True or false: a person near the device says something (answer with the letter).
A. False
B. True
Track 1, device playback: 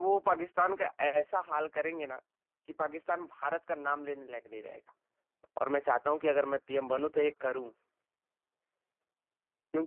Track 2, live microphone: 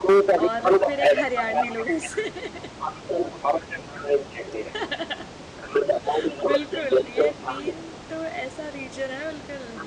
B